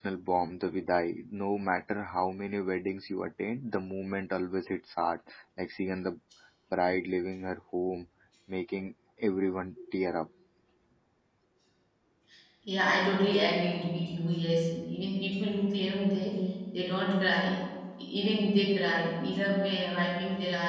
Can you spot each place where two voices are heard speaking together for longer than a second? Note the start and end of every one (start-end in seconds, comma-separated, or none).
none